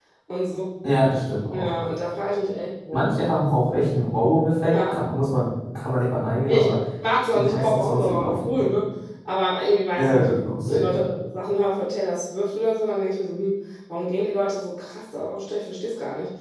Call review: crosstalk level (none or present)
present